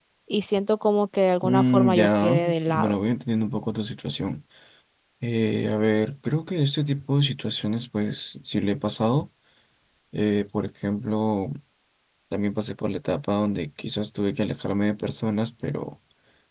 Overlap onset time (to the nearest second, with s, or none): 1 s